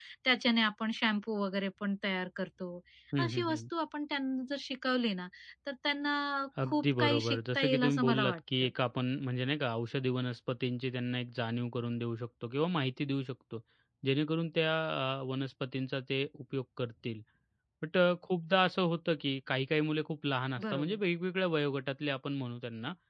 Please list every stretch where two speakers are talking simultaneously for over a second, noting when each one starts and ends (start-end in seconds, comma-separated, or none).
6.6-8.7